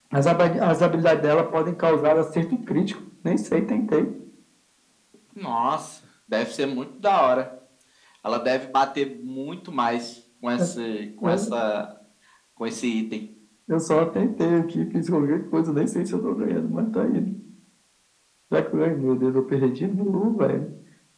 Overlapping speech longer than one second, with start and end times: none

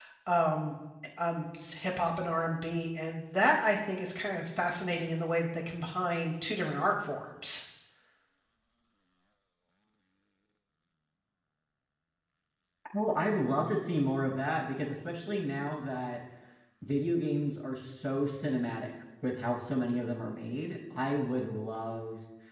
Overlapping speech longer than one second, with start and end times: none

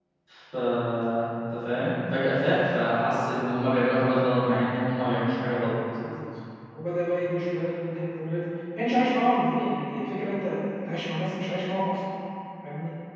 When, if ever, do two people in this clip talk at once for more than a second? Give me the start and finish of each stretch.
none

